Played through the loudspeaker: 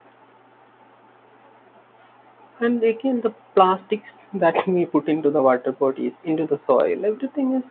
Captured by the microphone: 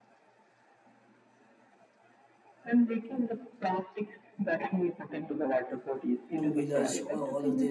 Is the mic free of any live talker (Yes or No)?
No